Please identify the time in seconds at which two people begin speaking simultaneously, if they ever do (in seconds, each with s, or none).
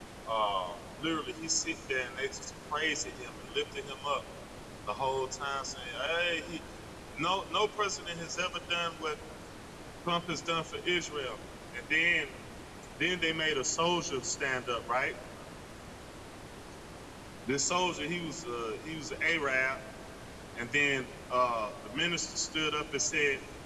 none